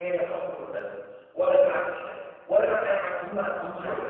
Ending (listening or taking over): taking over